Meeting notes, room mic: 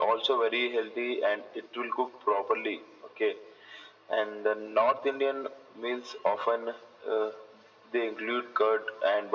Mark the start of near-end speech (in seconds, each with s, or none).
none